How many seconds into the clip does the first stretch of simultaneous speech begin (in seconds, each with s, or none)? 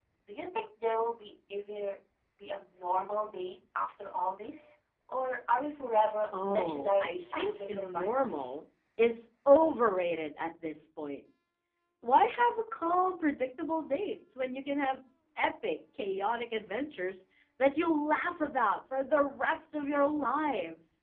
6.3 s